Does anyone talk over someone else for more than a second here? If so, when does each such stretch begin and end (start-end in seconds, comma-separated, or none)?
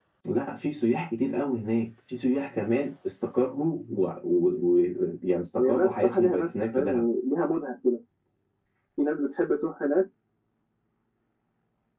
5.6-7.1